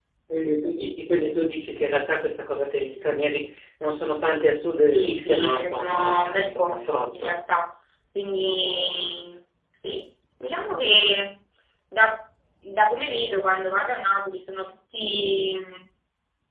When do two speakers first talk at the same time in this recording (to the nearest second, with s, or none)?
5 s